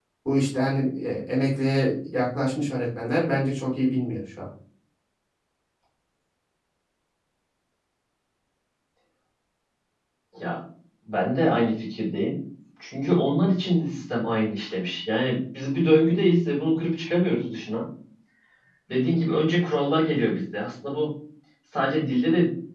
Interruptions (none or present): none